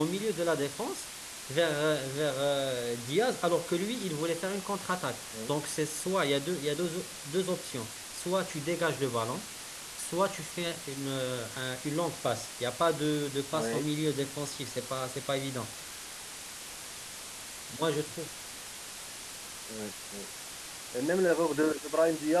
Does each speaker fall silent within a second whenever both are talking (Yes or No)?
Yes